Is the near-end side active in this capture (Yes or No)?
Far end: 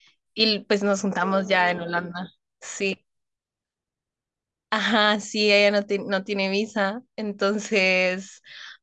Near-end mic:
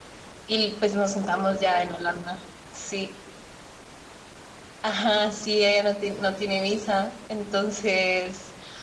No